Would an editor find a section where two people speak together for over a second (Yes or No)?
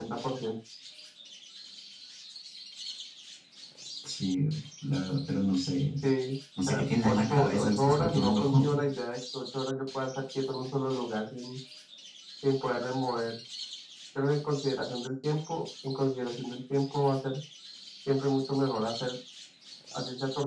Yes